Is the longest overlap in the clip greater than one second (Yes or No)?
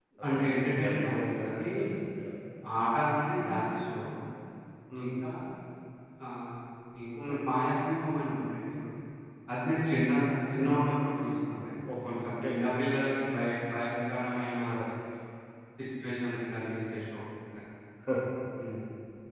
Yes